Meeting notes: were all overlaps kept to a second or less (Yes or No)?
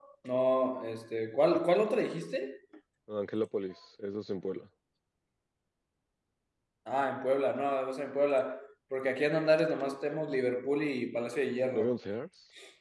Yes